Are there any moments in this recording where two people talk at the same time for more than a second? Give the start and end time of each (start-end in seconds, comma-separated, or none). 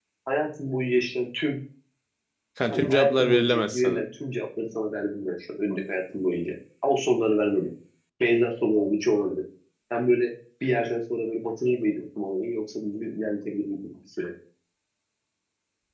2.7-4.0